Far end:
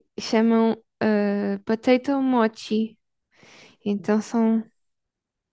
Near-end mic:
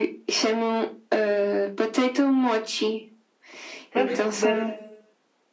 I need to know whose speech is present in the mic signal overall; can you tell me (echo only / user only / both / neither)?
both